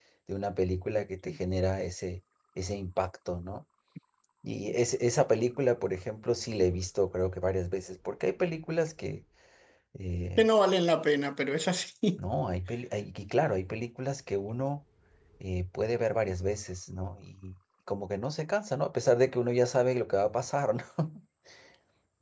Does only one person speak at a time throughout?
Yes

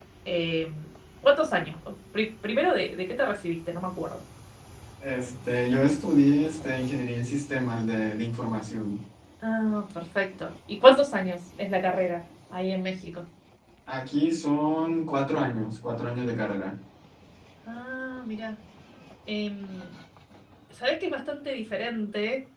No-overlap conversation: Yes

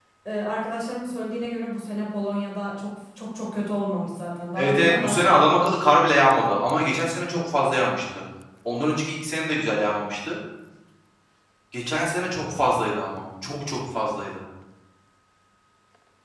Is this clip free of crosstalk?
No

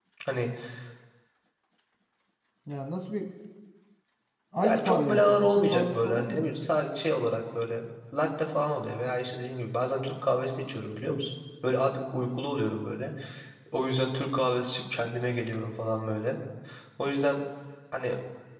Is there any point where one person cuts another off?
Yes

